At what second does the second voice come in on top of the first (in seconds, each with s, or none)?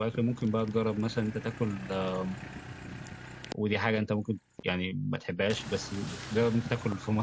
none